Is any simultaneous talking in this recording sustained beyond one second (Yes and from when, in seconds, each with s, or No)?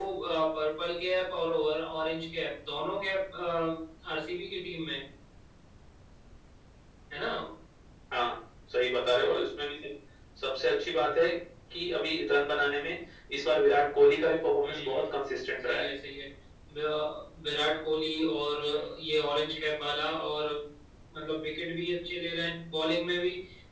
No